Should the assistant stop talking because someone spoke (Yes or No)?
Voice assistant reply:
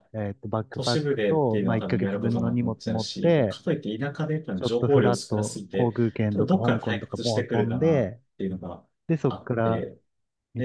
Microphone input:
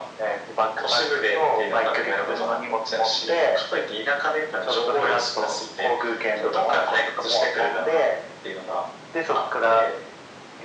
No